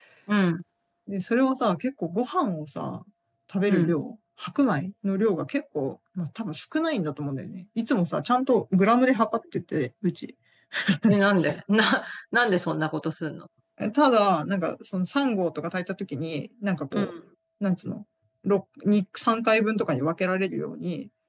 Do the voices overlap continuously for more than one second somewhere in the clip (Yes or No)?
No